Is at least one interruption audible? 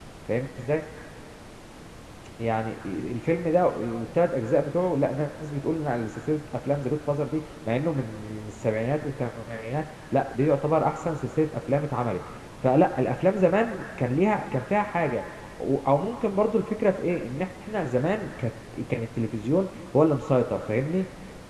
No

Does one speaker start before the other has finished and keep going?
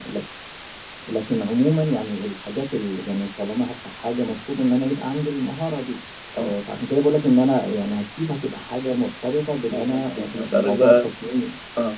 Yes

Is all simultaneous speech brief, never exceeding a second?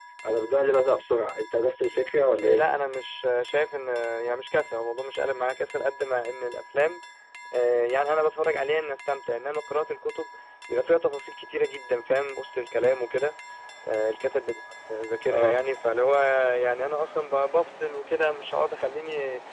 Yes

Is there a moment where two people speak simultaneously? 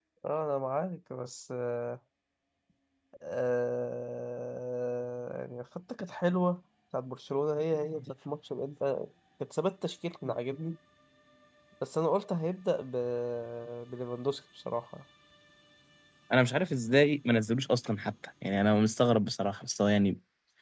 No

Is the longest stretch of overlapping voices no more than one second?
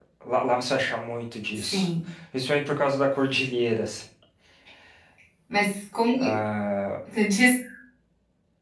Yes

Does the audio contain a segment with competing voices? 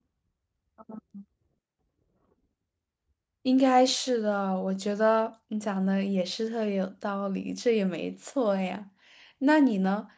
No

